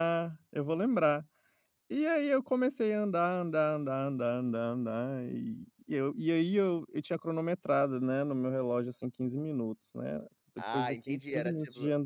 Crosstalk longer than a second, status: present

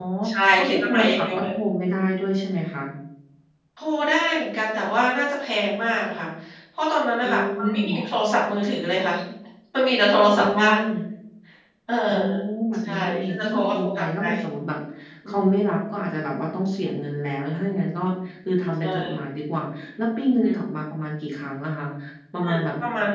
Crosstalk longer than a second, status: present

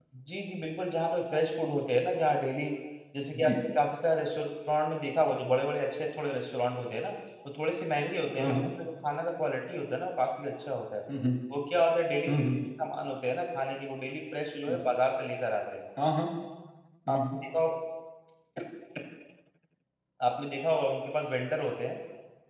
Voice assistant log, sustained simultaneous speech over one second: none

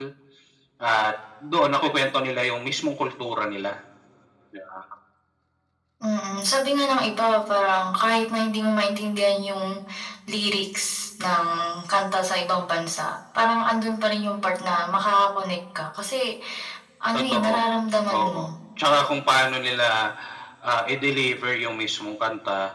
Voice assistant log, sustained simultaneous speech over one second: none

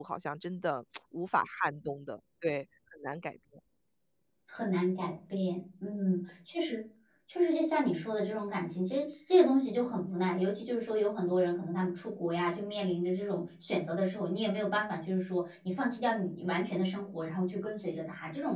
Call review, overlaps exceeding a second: none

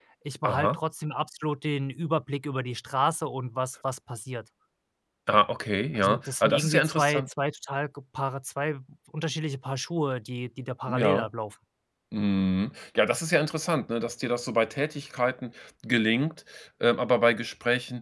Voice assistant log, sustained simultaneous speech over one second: present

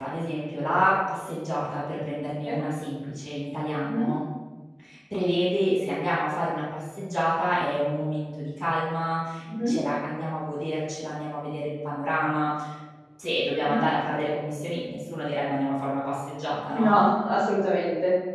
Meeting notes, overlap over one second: none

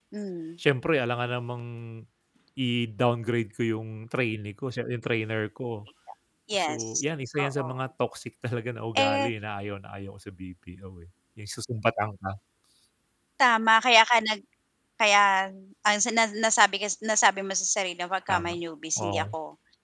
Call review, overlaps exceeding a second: none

